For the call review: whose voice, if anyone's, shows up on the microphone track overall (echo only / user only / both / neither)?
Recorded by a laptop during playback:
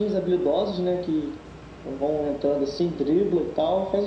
echo only